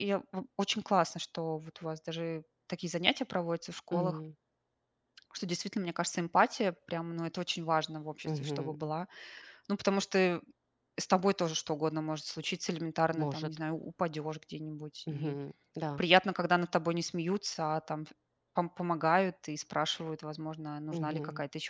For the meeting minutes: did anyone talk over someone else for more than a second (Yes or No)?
No